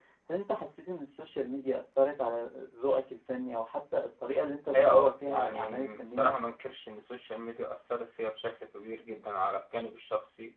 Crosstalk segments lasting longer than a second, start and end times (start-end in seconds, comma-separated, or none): 4.8-6.3